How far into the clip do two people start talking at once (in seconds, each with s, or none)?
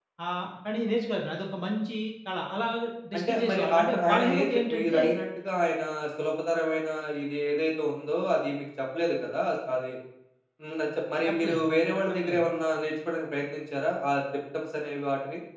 3.2 s